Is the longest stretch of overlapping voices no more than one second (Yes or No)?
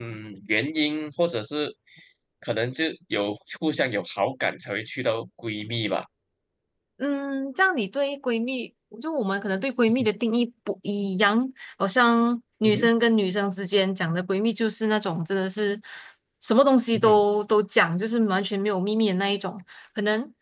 Yes